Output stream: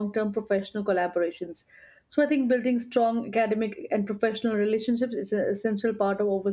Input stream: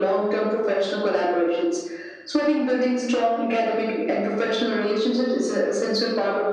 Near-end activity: none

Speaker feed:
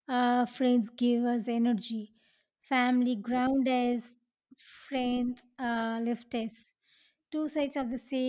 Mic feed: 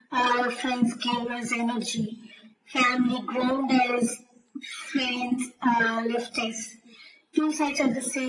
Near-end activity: none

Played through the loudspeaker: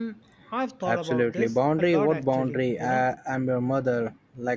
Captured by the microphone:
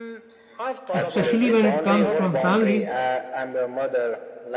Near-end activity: present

